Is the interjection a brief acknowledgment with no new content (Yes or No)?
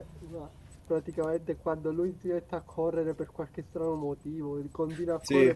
Yes